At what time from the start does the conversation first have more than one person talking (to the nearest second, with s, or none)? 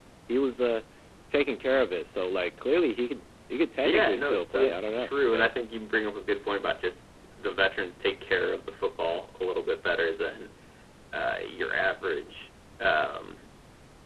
4 s